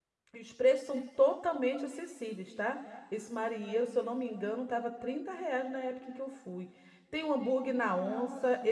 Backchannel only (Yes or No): Yes